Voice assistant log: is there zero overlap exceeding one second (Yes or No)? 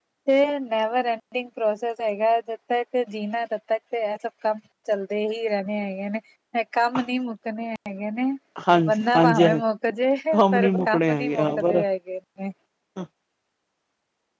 No